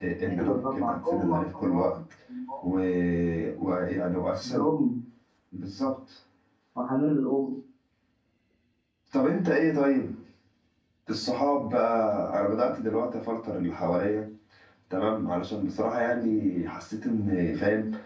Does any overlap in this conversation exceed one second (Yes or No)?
Yes